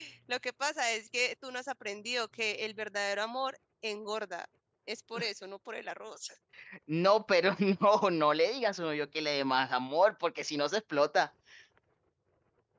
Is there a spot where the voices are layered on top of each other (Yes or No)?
No